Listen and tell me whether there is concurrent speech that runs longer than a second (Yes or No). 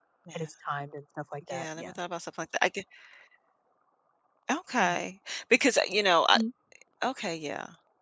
No